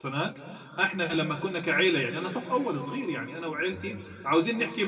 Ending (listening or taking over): listening